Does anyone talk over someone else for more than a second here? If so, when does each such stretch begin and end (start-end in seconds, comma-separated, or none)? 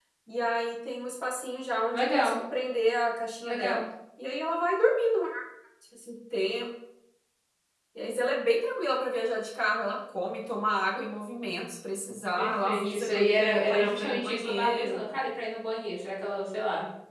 12.4-15.0